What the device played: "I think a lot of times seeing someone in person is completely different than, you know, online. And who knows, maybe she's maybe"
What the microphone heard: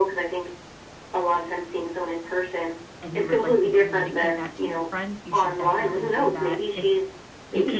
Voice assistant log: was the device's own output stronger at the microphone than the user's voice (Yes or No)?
Yes